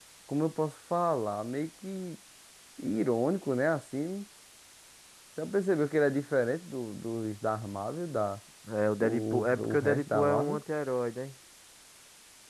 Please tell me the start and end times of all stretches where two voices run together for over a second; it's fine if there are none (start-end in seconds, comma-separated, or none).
9.0-10.6